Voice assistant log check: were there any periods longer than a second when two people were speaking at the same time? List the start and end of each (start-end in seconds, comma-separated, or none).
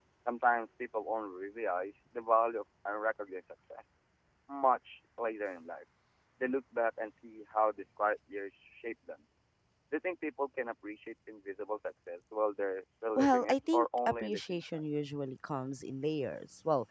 13.2-14.8